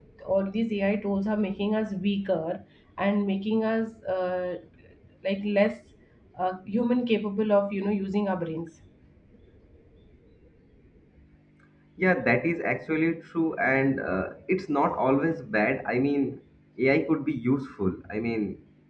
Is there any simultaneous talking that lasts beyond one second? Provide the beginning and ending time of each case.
none

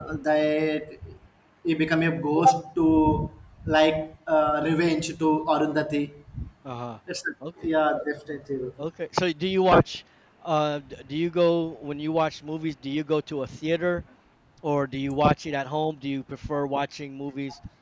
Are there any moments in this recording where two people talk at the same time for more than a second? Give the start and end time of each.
none

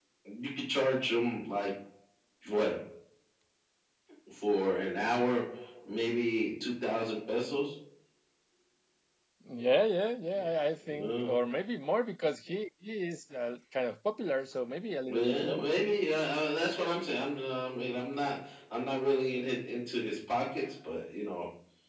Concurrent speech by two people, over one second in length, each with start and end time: none

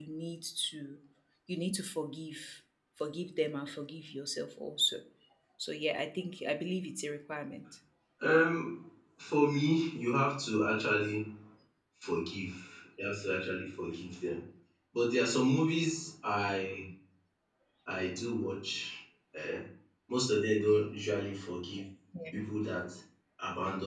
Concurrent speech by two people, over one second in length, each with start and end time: none

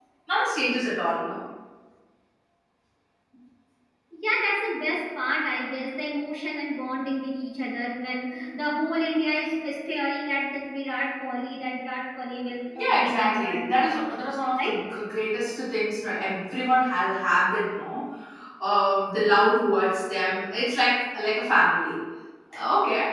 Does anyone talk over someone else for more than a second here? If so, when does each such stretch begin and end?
12.8-14.0

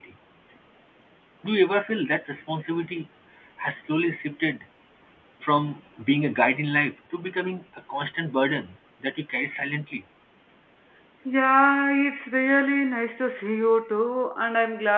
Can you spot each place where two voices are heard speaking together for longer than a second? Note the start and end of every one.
none

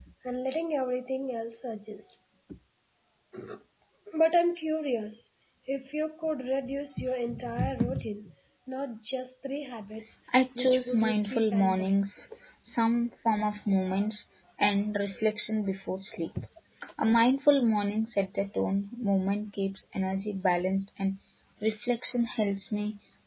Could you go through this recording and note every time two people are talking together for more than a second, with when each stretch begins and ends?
10.6-11.9

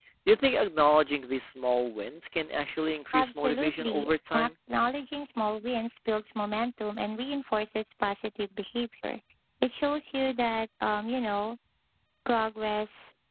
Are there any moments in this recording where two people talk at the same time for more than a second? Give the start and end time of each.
3.1-4.5

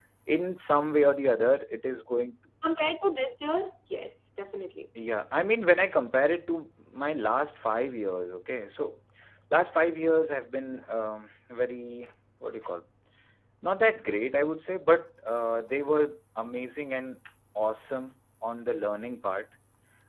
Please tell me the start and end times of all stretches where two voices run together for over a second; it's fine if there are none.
none

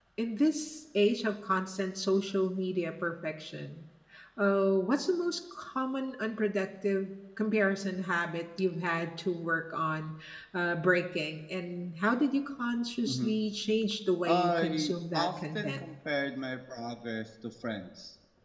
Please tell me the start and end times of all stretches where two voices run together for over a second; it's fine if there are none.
14.3-15.8

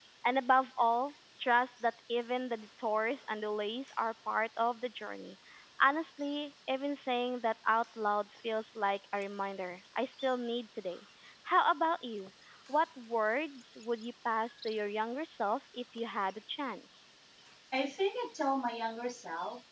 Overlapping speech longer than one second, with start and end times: none

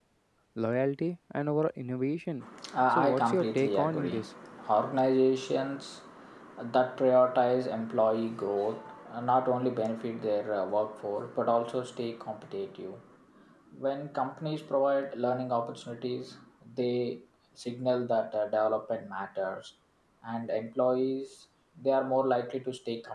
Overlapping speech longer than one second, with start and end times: 2.9-4.2

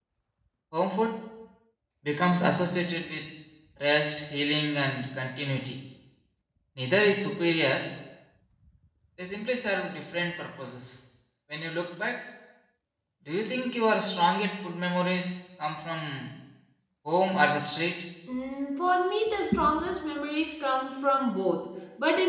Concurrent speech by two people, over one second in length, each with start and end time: none

